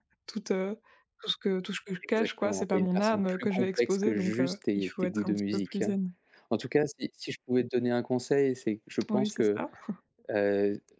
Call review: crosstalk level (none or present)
present